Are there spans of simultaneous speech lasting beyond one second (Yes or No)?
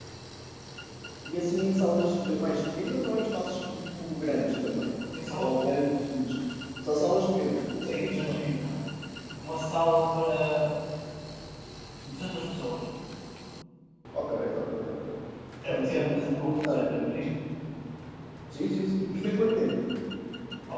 Yes